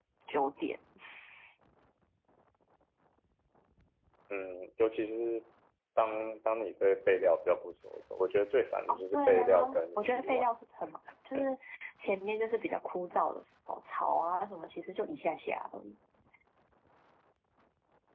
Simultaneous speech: Yes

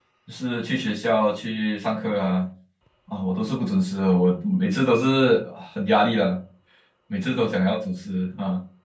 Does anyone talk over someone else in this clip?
No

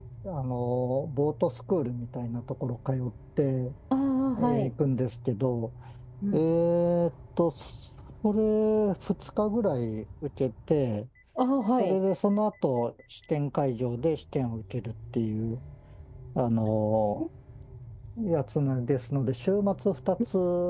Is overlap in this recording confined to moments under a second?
Yes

